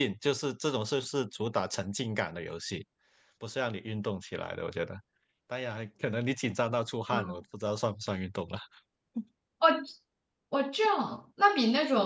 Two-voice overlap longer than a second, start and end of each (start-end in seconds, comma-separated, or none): none